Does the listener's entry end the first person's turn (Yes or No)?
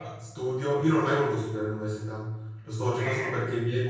No